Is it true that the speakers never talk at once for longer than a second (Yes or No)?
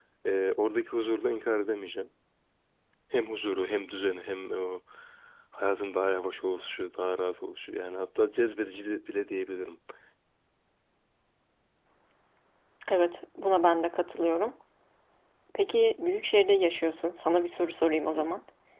Yes